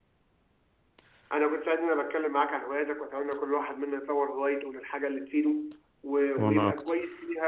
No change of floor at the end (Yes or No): Yes